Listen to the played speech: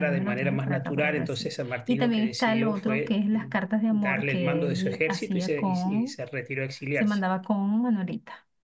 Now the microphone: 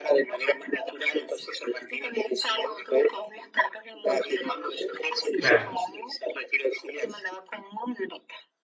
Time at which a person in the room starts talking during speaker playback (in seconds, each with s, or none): 5.4 s